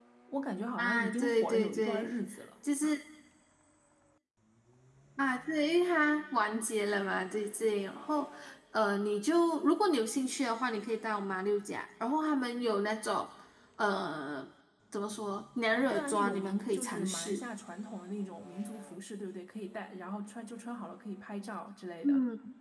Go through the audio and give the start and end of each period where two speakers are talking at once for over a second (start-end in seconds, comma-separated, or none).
0.8-2.1, 15.7-17.4